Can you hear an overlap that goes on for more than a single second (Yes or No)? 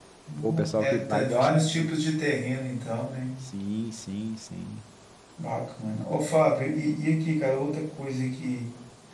Yes